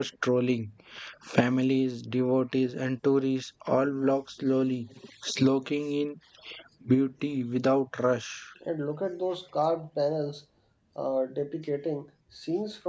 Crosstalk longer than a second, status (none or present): none